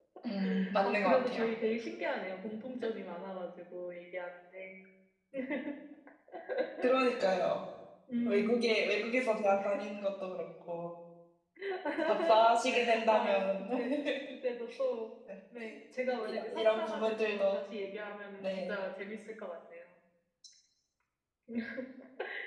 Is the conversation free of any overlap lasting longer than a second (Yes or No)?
No